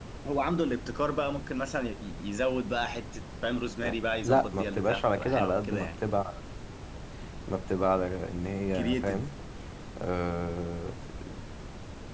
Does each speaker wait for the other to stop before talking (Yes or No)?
No